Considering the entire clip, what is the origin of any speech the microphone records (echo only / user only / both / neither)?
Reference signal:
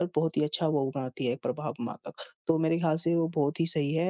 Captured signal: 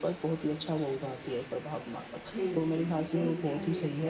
both